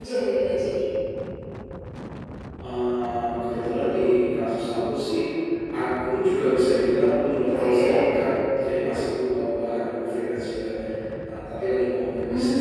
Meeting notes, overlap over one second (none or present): none